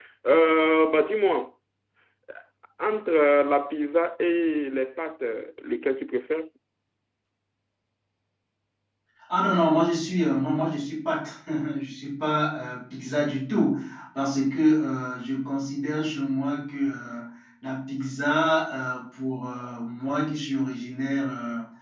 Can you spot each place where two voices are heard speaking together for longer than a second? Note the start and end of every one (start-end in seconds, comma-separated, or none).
none